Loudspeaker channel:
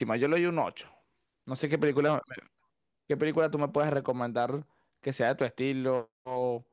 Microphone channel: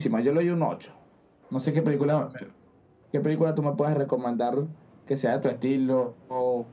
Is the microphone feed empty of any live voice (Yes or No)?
Yes